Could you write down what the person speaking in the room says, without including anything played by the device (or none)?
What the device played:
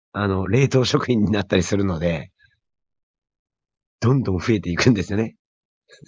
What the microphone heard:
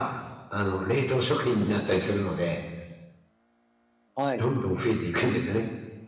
はい。